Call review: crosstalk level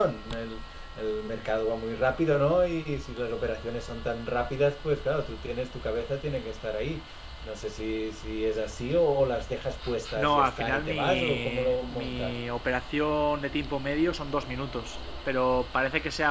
present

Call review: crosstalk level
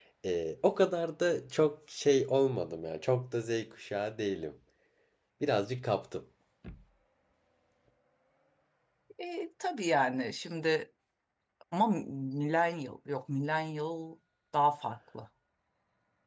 none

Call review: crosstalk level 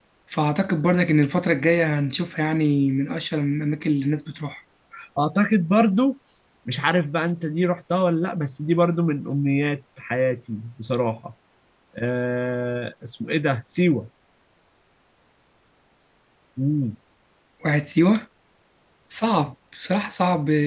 none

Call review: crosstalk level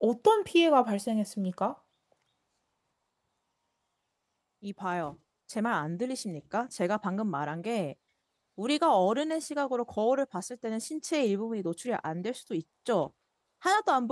none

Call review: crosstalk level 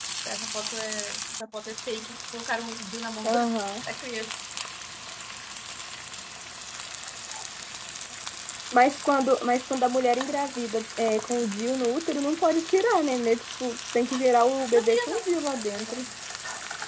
present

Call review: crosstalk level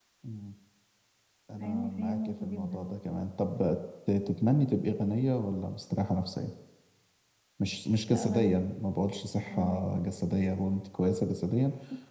present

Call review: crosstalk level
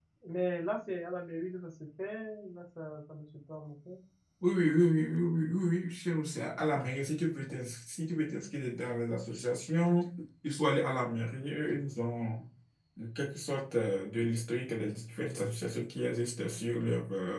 none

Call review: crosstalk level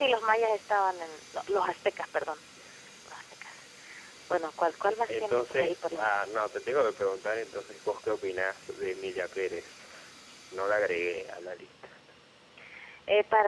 present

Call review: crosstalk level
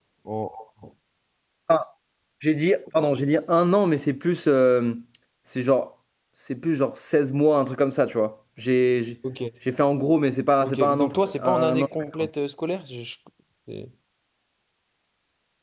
present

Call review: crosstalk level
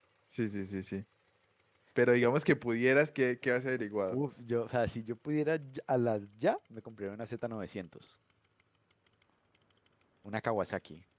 none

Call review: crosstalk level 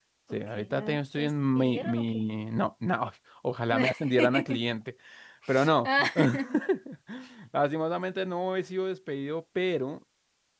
present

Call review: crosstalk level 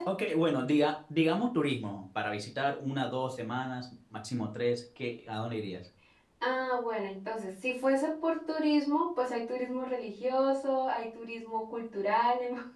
none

